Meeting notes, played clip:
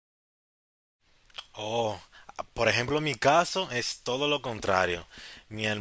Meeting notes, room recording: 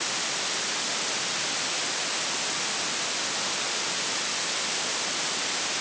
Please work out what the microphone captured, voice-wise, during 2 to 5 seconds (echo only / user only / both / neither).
neither